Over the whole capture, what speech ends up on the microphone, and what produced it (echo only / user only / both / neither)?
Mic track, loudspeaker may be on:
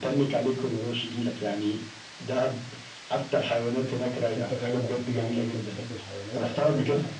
both